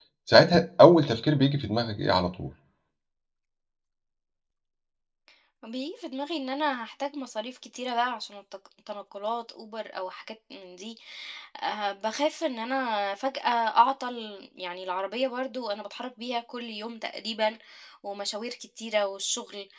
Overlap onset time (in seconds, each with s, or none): none